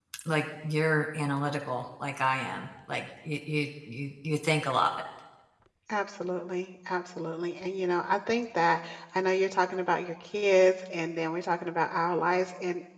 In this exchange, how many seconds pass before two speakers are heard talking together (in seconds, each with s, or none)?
none